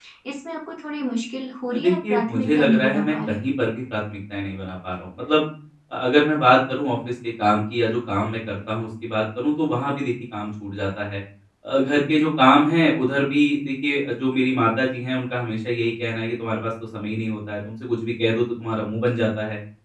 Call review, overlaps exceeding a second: present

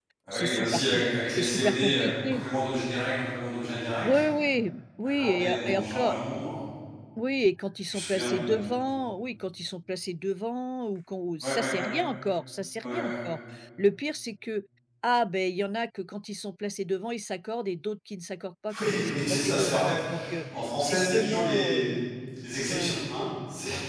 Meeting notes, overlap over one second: present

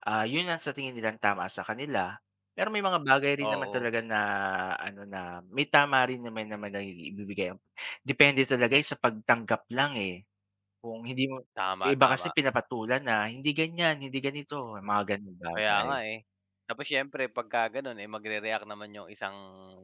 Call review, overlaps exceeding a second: none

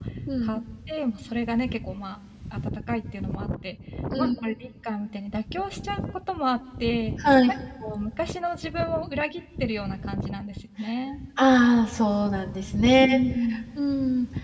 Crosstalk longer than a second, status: none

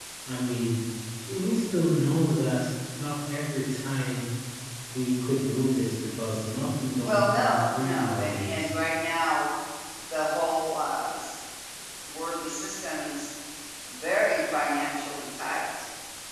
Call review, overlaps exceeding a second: present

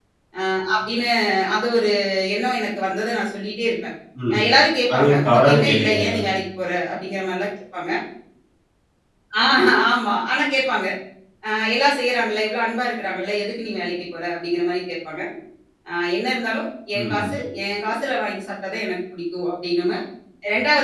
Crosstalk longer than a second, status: present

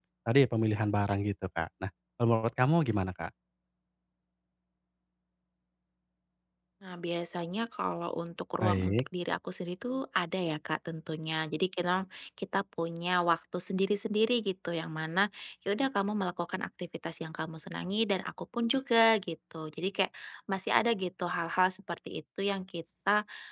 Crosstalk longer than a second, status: none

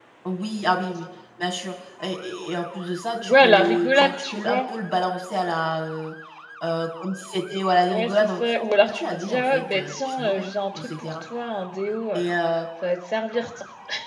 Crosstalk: present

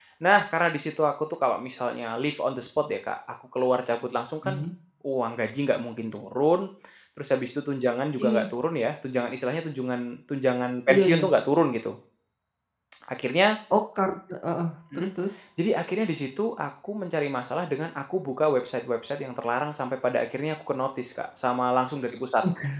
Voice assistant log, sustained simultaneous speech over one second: none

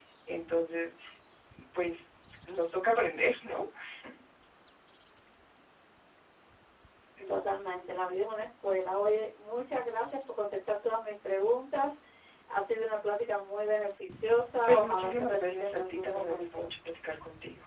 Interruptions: present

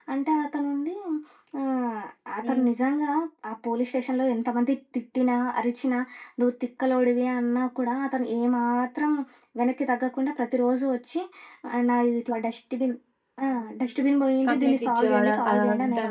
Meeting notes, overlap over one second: present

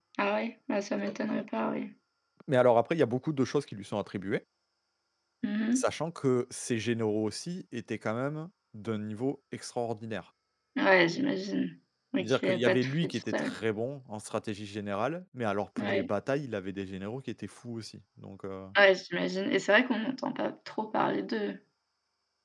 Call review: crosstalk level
present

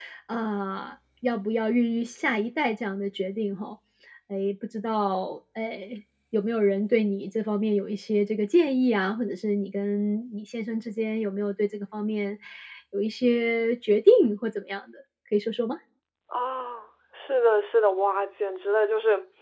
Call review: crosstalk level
none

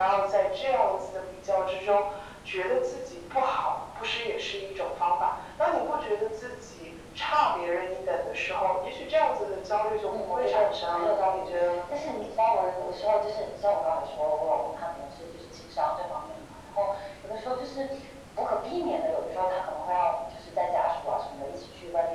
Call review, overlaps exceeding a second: present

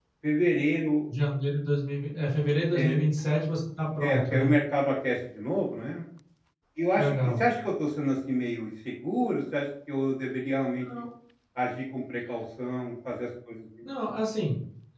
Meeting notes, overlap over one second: none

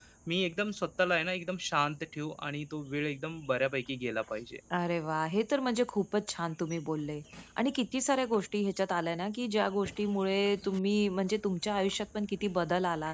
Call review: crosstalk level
none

